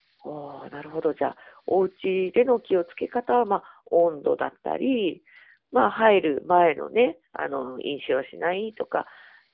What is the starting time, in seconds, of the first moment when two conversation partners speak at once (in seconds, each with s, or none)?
none